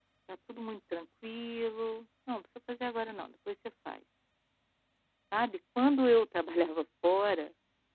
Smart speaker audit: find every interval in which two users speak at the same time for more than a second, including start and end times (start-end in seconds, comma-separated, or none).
none